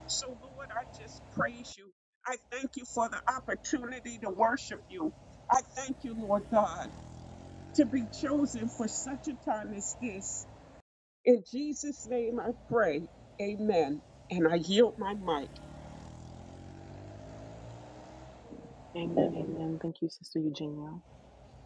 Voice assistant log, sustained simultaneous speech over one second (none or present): none